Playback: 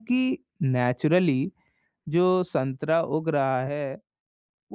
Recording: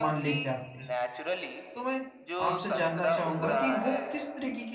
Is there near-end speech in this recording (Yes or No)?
Yes